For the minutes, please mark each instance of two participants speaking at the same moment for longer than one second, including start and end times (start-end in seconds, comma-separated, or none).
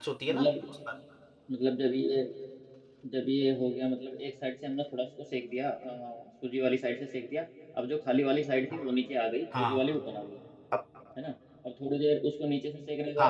none